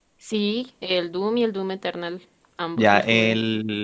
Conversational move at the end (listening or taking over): taking over